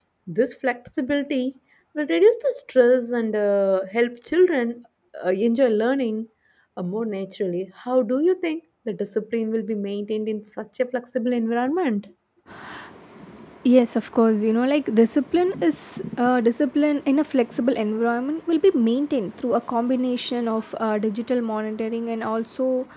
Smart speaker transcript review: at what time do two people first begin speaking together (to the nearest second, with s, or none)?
none